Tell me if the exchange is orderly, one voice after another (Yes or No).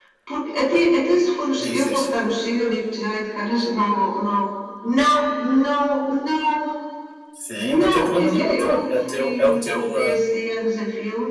No